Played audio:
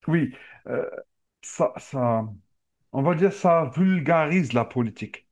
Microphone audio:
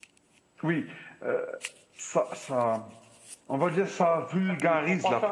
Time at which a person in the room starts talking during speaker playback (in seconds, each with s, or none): 3.8 s